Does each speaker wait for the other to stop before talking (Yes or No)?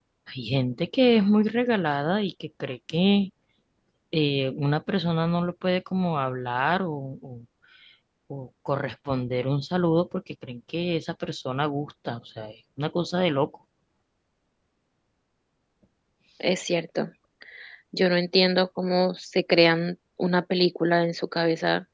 Yes